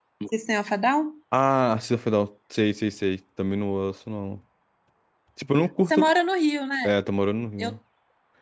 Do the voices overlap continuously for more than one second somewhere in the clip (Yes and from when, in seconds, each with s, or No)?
No